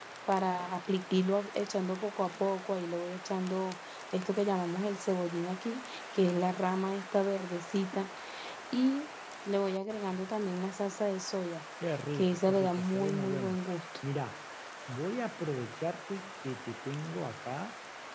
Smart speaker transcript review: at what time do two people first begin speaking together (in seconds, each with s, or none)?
12.1 s